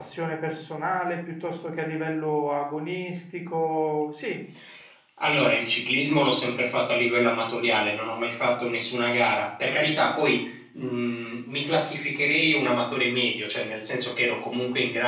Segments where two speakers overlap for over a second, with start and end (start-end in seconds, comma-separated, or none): none